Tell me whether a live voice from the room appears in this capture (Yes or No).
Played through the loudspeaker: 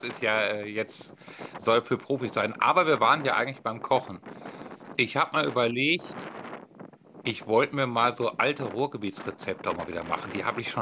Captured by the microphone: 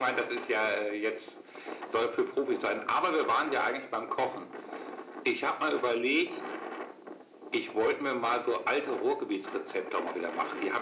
No